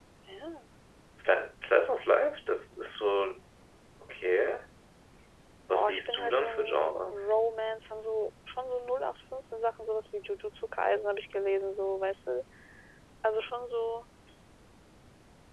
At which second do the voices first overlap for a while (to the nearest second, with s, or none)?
6 s